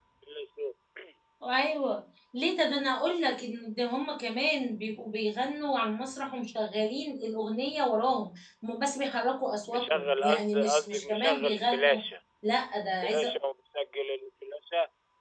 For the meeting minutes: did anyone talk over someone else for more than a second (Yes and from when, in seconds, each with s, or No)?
Yes, from 9.7 s